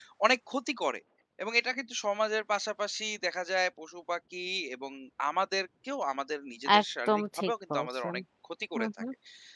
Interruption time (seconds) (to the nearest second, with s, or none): 7 s